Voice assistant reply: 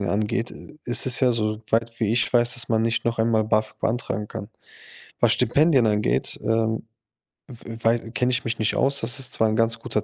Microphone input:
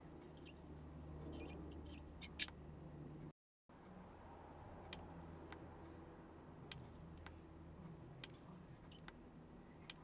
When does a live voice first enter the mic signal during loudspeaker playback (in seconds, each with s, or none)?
none